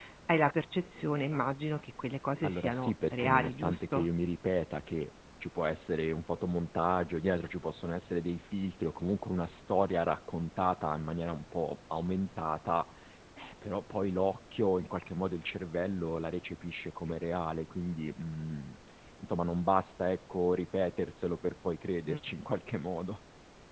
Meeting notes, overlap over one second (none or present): present